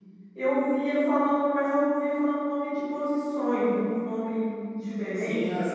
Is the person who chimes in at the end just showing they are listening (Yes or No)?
No